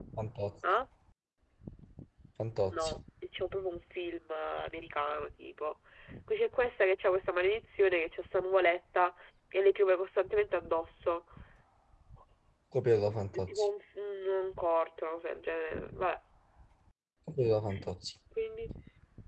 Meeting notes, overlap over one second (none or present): none